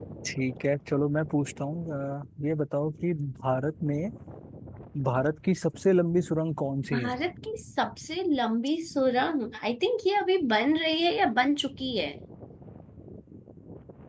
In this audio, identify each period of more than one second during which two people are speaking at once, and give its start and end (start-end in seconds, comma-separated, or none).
none